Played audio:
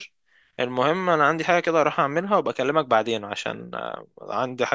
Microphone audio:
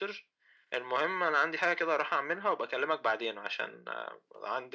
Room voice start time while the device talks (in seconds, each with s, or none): none